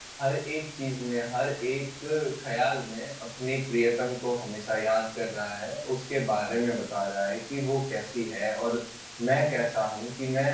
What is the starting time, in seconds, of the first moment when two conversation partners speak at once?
none

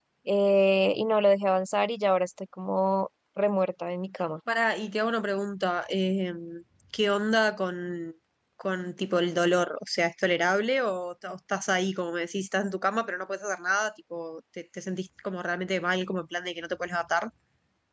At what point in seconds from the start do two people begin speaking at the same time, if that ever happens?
none

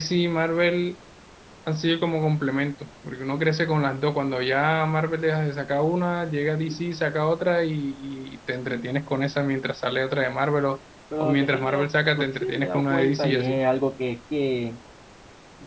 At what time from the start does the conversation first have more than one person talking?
11.1 s

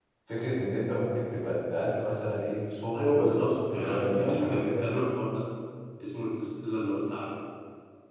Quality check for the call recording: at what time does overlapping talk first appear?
2.9 s

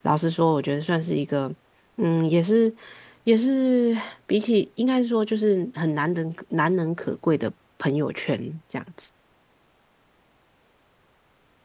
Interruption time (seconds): none

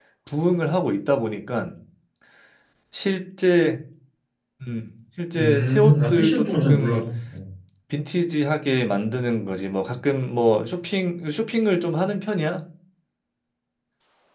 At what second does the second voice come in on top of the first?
5.4 s

